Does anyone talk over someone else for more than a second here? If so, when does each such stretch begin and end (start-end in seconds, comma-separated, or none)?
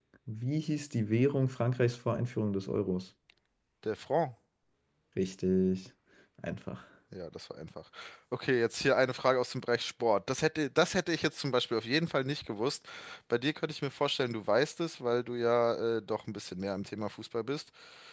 none